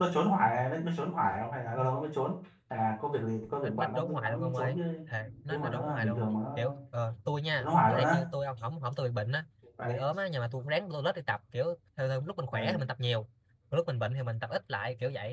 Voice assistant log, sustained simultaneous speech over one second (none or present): present